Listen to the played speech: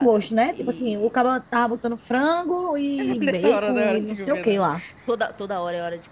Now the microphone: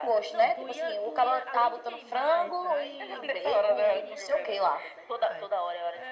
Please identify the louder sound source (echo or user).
echo